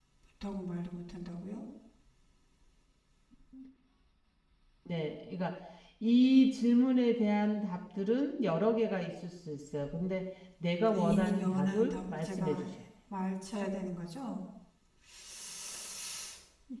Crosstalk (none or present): present